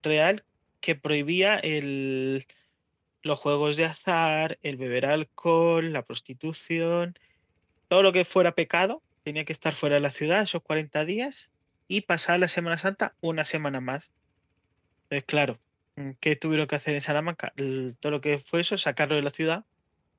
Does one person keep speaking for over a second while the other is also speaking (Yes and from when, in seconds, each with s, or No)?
No